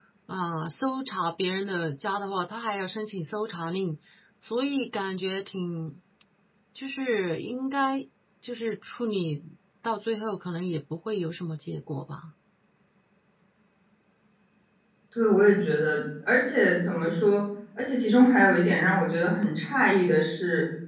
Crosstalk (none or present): none